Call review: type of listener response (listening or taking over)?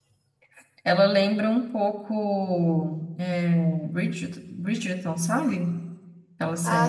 taking over